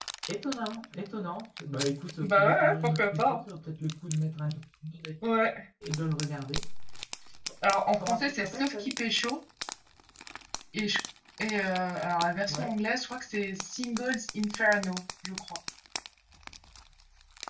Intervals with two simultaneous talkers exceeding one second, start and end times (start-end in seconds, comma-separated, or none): 2.2-3.4, 7.6-9.0